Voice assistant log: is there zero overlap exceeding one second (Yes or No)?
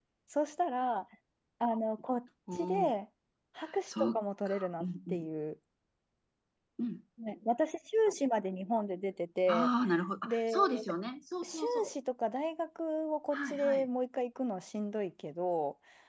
No